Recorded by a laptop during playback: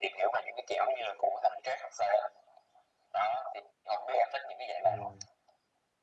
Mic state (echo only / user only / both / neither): both